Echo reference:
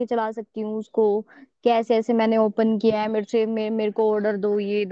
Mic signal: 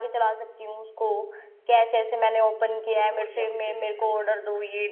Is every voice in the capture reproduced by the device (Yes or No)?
No